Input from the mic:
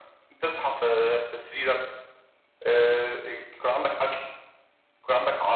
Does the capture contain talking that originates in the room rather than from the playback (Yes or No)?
No